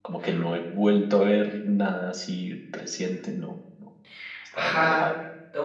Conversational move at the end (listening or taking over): taking over